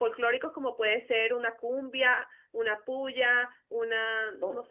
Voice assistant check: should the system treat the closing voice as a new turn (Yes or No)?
No